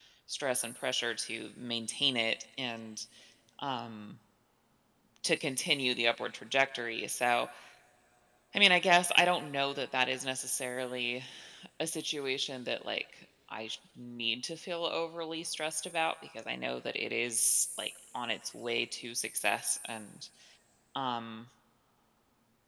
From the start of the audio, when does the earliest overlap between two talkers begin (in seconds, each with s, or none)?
none